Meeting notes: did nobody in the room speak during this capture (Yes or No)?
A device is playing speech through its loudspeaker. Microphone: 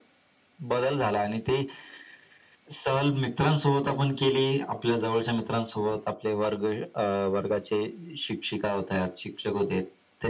Yes